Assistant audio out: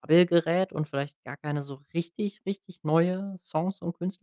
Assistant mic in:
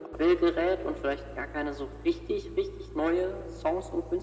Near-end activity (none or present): none